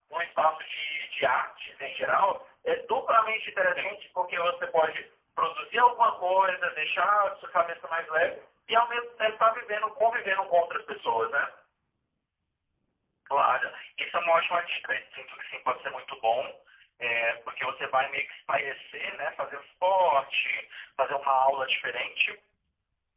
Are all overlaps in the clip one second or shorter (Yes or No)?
Yes